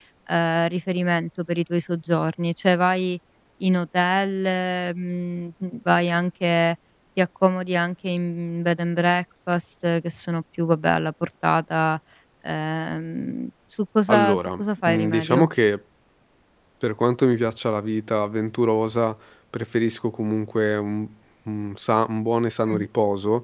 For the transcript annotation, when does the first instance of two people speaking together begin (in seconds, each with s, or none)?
14.1 s